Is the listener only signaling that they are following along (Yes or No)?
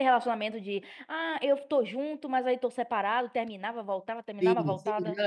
No